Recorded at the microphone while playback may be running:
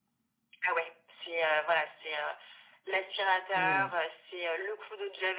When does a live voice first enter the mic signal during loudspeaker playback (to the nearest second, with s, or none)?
4 s